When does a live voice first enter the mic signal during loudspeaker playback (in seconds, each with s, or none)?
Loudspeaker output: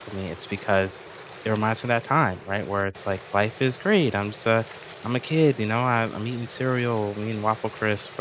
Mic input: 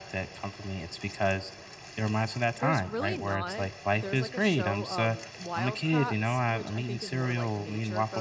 2.6 s